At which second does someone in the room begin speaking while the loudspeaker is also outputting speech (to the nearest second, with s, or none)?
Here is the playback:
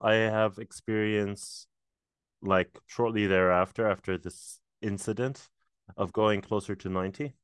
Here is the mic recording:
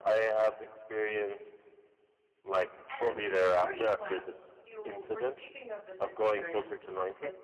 3 s